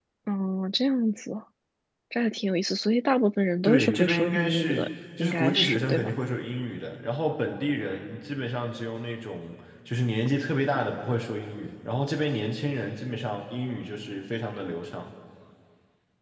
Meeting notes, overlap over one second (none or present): present